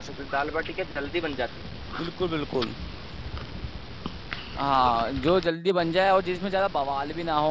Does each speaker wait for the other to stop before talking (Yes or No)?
Yes